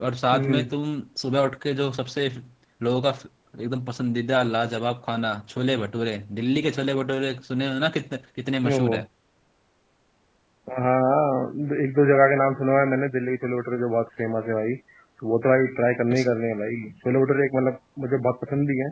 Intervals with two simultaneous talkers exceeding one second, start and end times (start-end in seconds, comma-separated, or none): none